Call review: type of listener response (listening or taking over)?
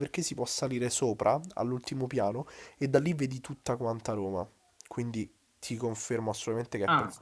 listening